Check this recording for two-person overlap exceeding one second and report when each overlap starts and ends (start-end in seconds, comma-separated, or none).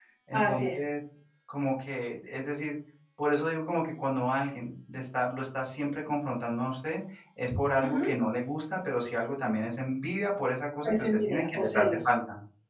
10.8-12.2